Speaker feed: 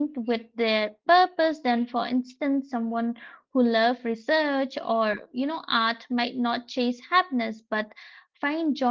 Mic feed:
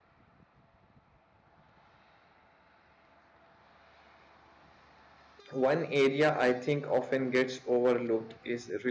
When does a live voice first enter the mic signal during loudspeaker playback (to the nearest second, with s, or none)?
6 s